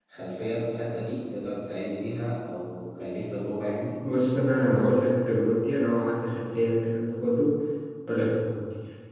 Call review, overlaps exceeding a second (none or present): none